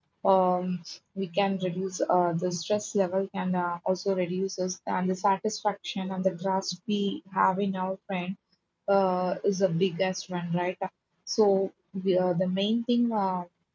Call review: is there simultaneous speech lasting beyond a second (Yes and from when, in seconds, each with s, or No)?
No